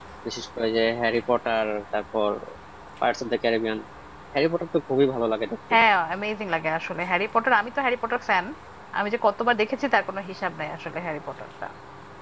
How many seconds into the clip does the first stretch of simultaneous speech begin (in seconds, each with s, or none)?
none